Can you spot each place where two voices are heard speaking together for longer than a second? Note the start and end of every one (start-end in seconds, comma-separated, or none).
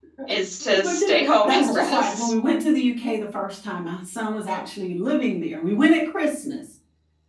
0.8-2.3